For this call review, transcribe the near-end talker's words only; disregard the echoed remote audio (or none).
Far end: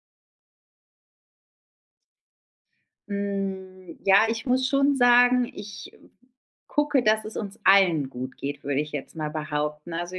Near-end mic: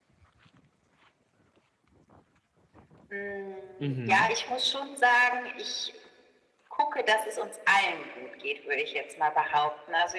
Mhm,